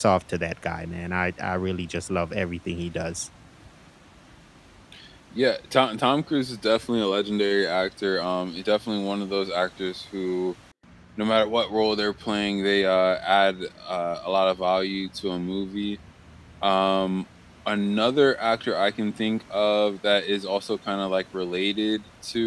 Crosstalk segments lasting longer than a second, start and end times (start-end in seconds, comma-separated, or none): none